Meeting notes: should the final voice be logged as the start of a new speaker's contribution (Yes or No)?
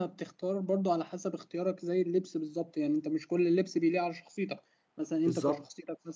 No